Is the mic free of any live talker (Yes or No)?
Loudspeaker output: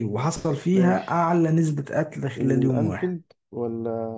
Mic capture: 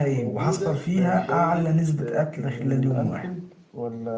No